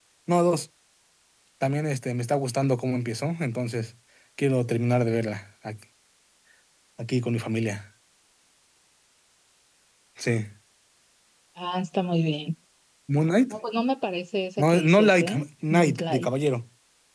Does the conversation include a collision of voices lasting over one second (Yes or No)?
Yes